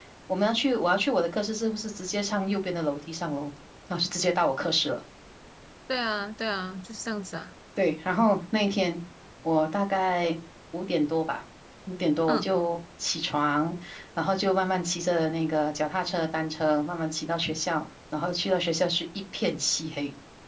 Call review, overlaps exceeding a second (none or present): none